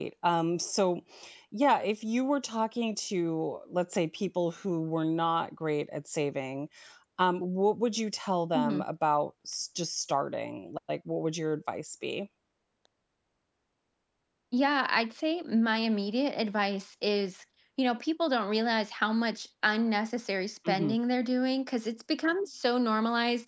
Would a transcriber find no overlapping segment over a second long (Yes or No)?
Yes